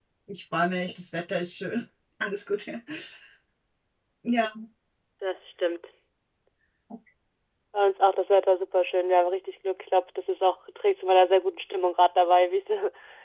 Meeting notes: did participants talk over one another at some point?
No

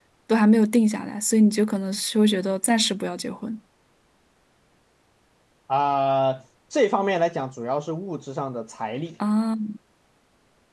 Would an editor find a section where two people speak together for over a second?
No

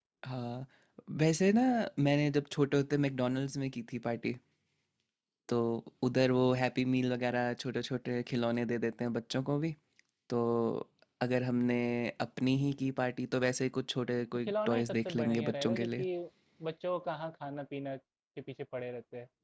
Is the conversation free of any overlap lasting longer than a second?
No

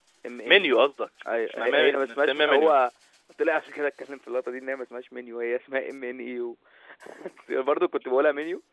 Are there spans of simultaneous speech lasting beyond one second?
Yes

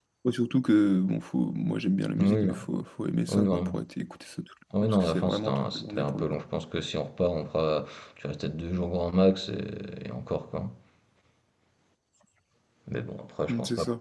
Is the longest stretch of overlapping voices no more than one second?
No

